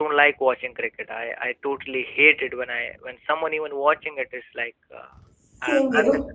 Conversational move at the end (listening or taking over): listening